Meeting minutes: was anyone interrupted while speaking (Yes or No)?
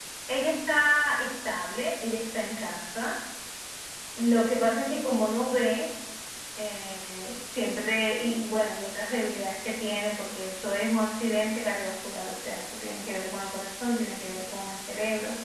No